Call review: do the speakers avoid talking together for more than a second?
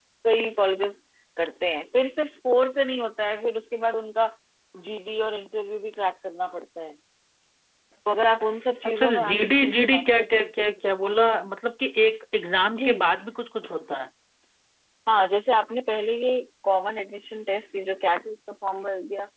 No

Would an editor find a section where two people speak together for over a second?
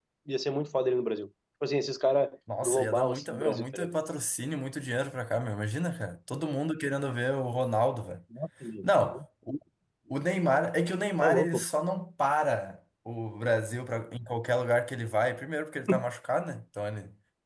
Yes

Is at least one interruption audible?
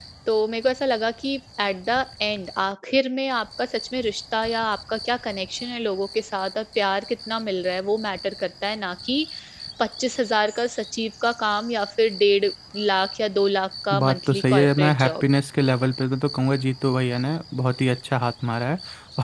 Yes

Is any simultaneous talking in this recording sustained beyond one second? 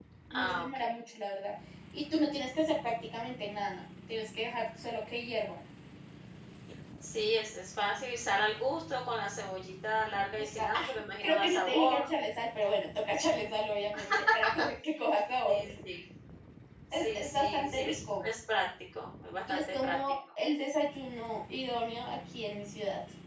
Yes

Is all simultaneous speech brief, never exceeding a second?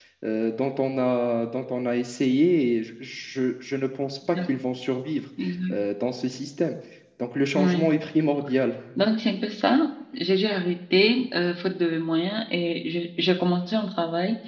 Yes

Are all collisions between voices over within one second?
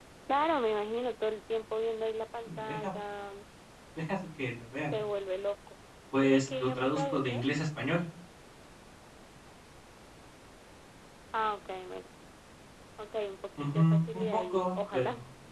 No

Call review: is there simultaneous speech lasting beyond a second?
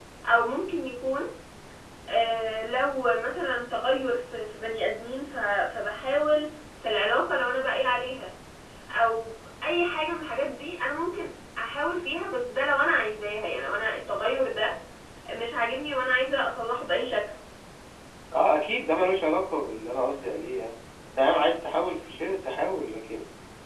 No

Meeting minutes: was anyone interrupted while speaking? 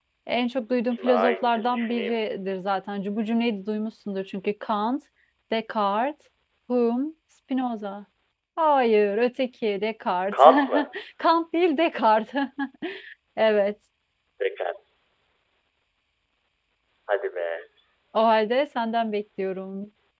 Yes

